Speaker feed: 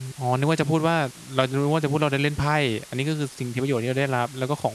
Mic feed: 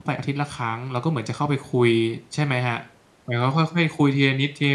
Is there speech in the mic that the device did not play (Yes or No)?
Yes